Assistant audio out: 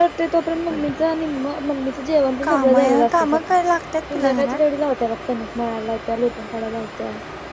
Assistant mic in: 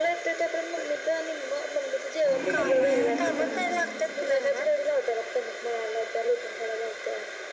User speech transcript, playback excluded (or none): मी बिर्याणी आणतो करून